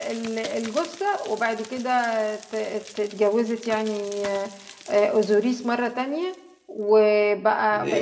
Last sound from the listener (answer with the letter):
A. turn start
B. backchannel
A